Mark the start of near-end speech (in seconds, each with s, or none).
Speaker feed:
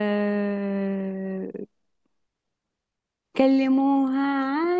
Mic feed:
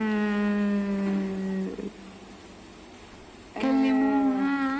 3.6 s